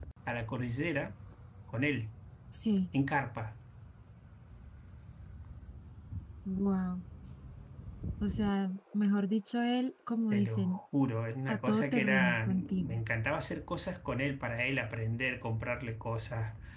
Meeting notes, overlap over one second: present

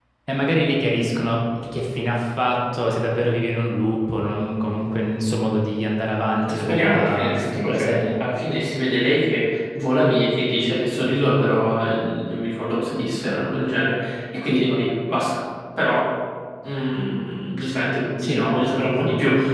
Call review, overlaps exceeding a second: present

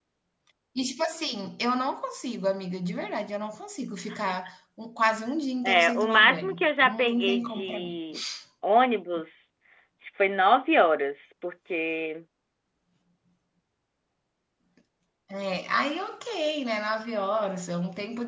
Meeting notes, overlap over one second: present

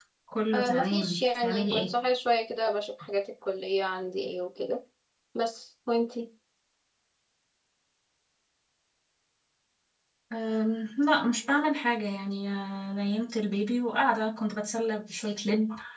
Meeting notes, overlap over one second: present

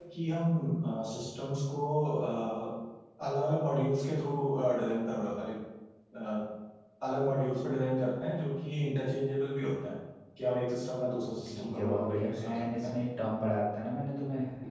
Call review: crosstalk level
present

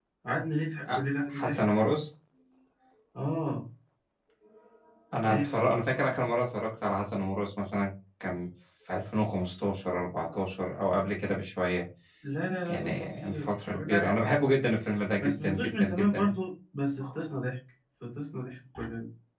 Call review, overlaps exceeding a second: present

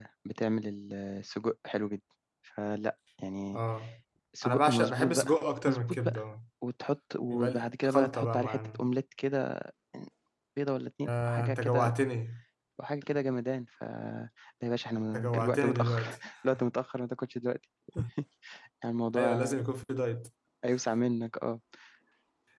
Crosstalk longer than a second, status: present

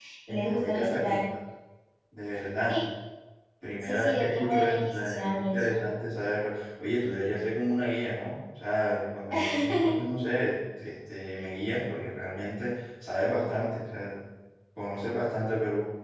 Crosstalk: present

